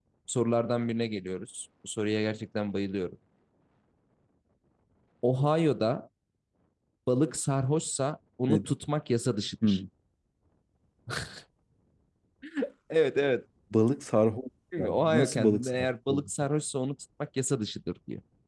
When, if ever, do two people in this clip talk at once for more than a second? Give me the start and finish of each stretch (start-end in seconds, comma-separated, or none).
14.8-16.2